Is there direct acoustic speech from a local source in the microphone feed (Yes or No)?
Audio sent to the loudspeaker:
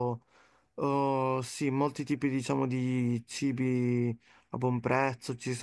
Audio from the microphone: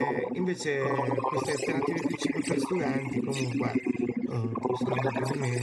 Yes